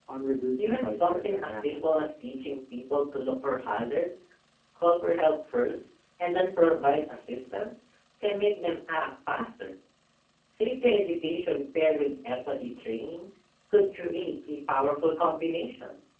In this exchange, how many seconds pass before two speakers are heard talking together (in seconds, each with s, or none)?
0.6 s